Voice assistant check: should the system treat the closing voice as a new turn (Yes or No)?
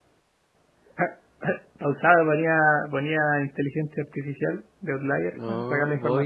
Yes